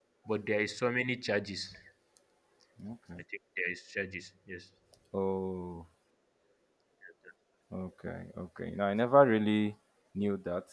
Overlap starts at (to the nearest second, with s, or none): none